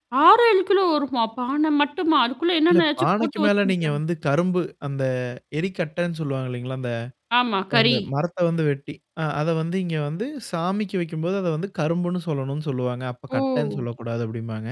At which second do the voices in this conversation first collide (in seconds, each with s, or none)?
2.7 s